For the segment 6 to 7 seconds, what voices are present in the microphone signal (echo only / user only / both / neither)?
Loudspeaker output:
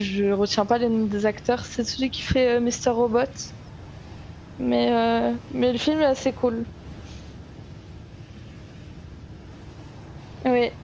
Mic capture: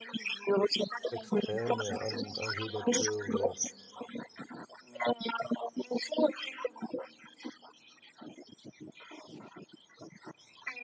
echo only